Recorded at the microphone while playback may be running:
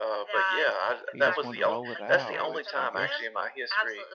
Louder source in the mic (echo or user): echo